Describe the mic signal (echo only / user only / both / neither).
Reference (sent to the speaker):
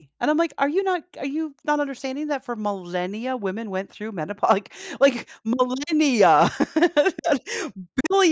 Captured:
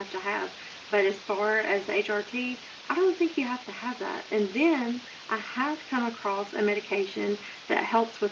user only